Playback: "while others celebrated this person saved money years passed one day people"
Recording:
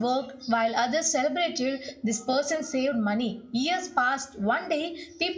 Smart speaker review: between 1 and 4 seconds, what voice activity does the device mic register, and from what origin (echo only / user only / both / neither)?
echo only